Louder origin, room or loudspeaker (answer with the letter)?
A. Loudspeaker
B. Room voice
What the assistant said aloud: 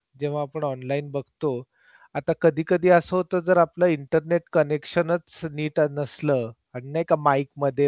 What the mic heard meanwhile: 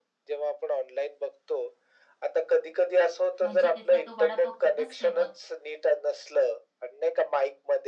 A